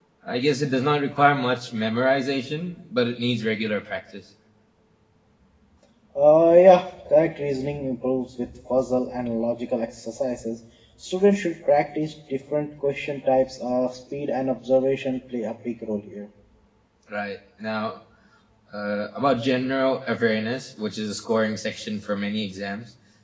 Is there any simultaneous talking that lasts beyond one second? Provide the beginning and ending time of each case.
none

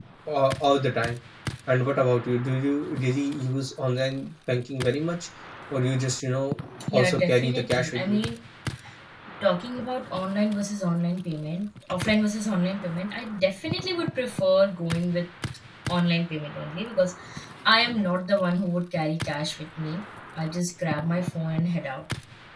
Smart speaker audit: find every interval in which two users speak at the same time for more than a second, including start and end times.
6.9-8.2

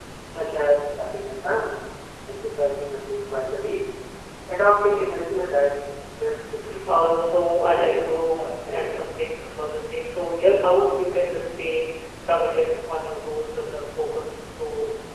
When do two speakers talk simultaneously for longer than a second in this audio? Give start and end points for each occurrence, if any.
7.5-9.4

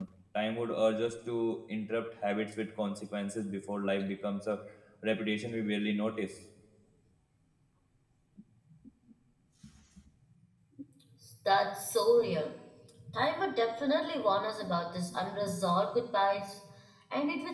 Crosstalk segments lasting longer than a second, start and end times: none

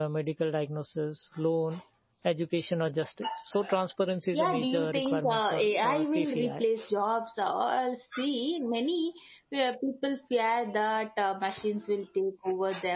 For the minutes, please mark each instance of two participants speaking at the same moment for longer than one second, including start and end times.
4.3-6.6

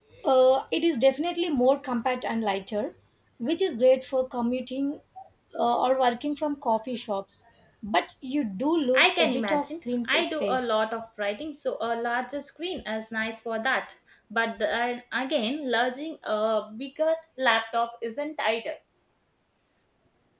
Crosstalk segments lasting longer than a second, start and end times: 9.0-10.7

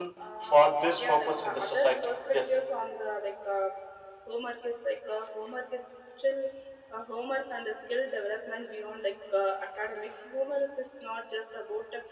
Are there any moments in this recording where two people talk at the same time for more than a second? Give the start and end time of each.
1.0-2.6

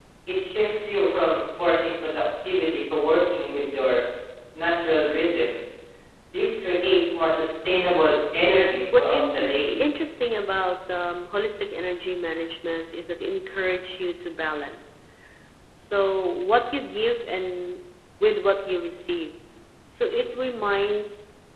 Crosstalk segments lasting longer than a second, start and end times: 8.4-9.8

